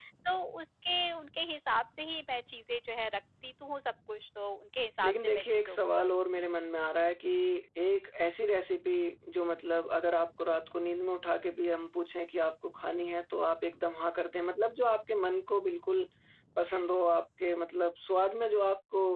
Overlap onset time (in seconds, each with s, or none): 5.0 s